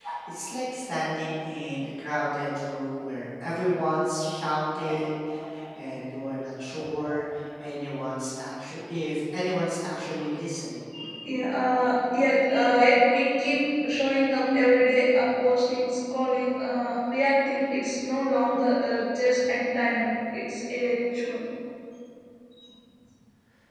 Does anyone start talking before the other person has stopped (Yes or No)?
No